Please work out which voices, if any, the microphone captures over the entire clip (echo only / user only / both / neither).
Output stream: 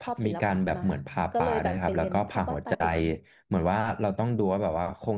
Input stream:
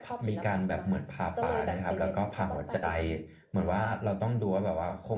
echo only